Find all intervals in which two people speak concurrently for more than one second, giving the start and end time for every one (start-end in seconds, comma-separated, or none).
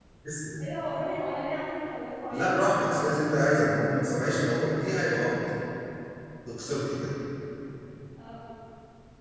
none